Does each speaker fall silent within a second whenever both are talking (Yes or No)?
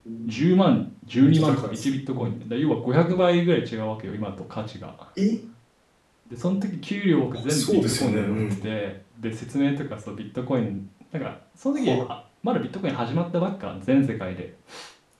No